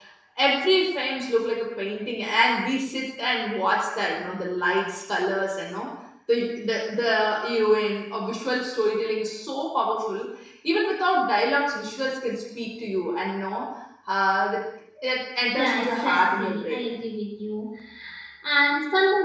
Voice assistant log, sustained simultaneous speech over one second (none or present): present